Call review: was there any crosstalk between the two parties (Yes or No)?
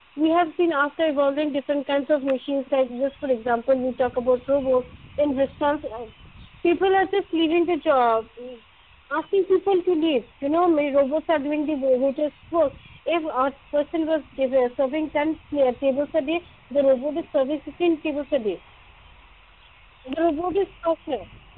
No